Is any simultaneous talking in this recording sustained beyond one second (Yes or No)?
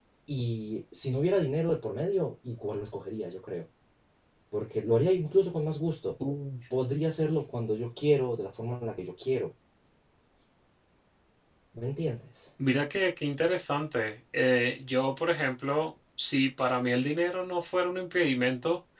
No